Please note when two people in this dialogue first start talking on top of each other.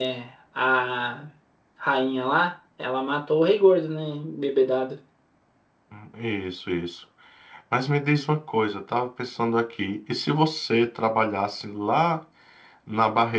none

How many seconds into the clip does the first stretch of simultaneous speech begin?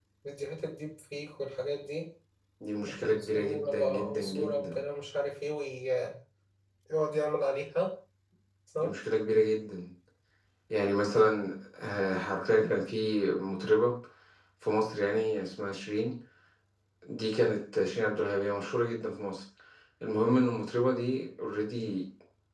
2.9 s

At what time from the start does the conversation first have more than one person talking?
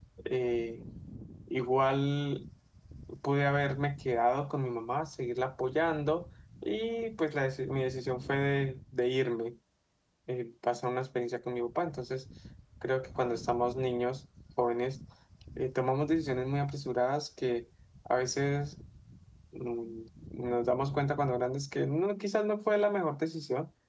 none

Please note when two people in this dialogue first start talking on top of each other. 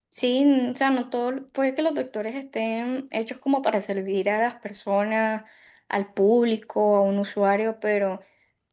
none

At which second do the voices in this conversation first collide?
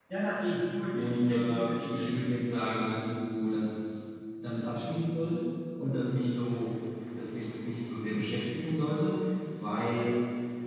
0.9 s

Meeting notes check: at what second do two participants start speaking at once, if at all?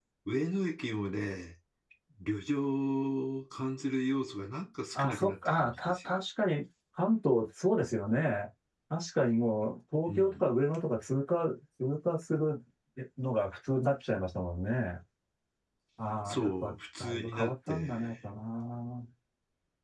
5.0 s

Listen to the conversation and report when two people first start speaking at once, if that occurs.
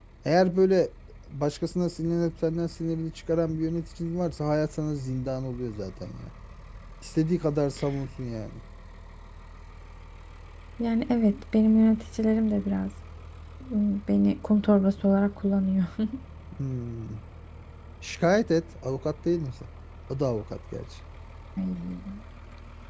none

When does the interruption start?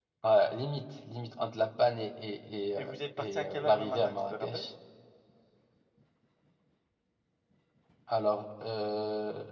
2.8 s

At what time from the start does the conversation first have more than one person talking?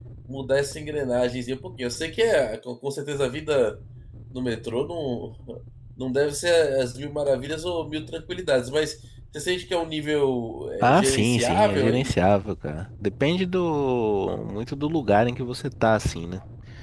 10.8 s

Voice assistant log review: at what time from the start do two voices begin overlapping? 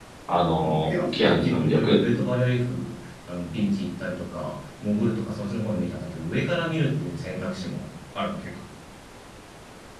0.6 s

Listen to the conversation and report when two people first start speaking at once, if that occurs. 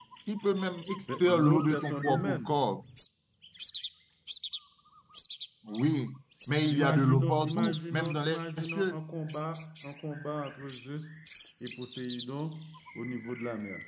1.2 s

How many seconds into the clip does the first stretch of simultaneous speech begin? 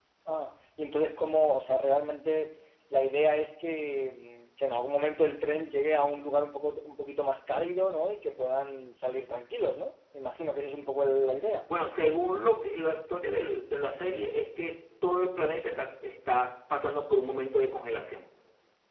none

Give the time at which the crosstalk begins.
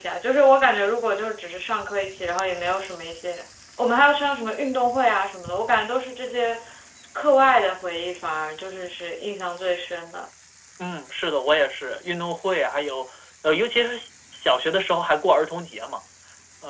none

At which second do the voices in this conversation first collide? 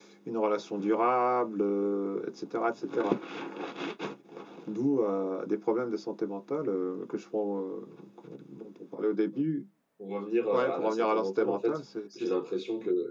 10.5 s

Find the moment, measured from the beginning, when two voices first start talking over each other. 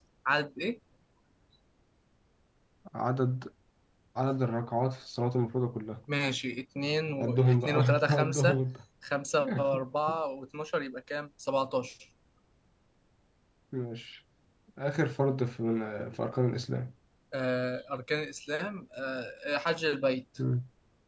7.2 s

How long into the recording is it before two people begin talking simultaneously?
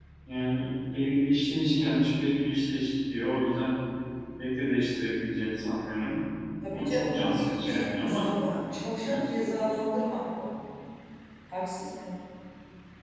6.7 s

